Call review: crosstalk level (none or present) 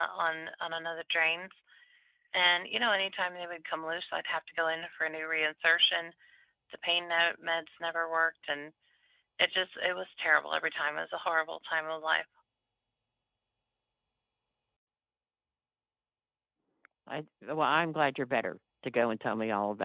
none